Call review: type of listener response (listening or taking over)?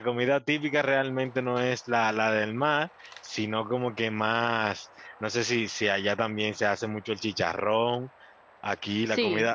listening